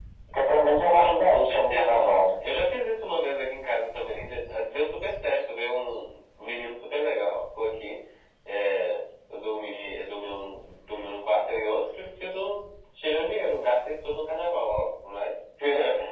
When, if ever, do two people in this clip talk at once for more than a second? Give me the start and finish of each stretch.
0.9-2.1

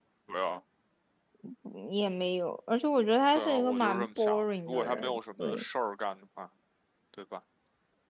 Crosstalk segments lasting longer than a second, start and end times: 3.4-5.6

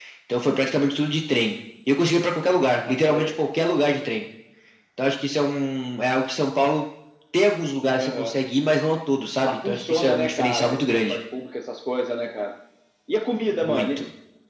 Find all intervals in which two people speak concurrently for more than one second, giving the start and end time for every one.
9.4-11.2

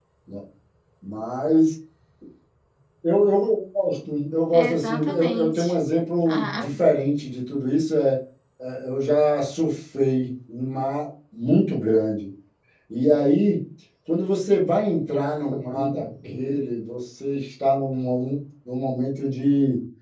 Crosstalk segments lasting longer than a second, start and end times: 4.5-5.8

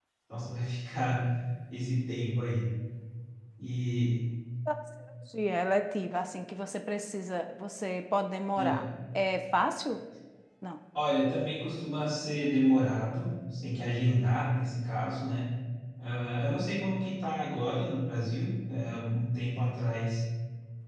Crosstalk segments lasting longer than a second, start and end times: none

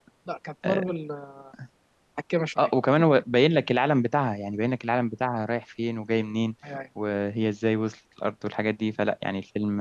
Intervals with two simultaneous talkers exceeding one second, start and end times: none

